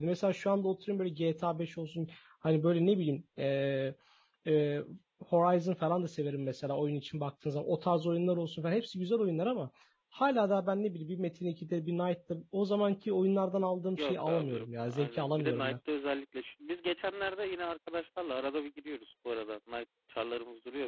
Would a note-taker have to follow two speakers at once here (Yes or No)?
Yes